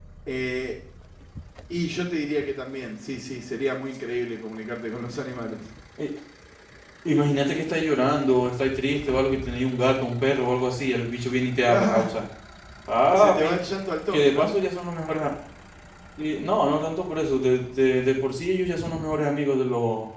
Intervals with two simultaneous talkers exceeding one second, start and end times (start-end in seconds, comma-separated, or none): none